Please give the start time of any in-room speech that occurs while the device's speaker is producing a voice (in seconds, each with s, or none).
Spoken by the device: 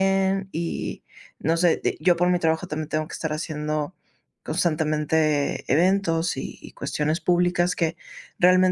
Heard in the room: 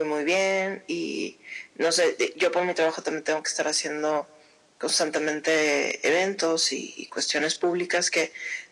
none